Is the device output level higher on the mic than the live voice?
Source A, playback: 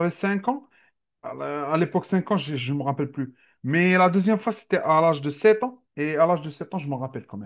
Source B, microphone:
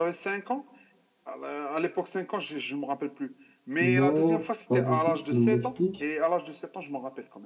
No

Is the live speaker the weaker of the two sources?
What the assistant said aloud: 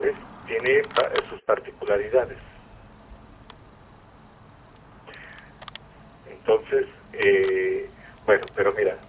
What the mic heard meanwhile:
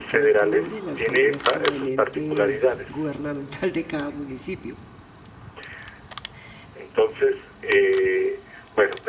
Yes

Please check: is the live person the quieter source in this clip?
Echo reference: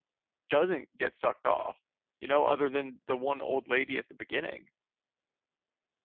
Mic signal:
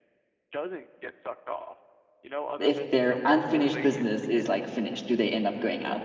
No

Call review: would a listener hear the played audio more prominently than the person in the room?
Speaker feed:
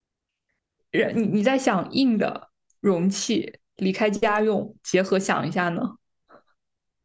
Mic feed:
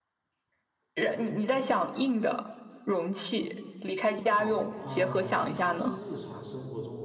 Yes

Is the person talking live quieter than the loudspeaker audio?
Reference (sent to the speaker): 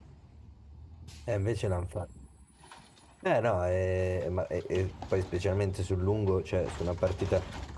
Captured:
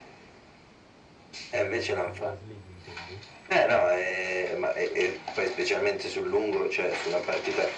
Yes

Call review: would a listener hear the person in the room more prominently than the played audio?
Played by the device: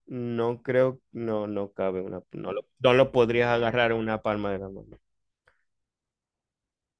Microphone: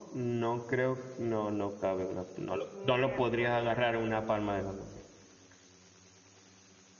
No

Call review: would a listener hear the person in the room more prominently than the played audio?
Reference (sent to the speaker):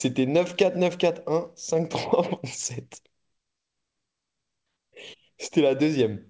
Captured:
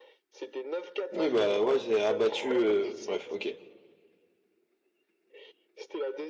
Yes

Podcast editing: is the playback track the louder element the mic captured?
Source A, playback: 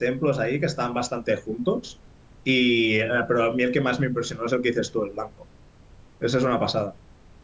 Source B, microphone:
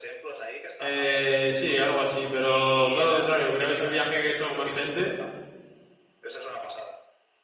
No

